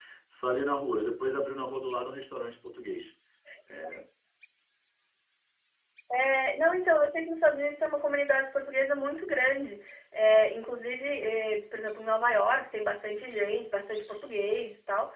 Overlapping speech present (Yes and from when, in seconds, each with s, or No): No